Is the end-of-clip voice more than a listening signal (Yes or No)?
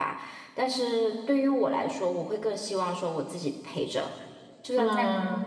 No